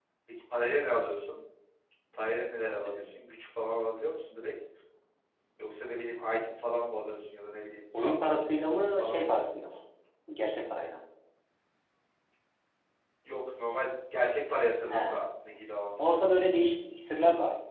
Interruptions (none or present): present